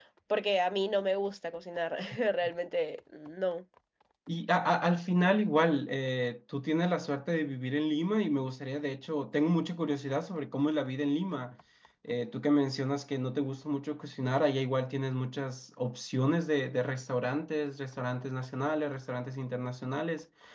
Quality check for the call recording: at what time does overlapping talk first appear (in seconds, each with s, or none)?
none